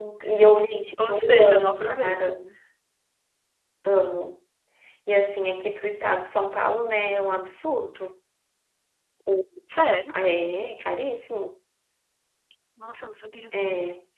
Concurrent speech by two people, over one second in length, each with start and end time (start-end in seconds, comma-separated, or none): 1.1-2.4